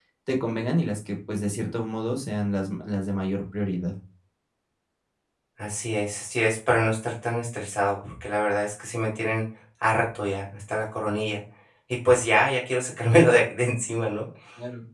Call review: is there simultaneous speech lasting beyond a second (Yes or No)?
No